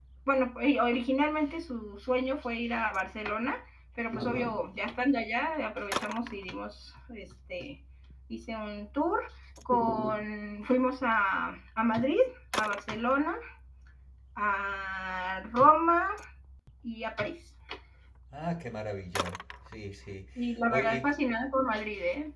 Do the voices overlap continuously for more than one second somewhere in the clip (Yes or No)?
No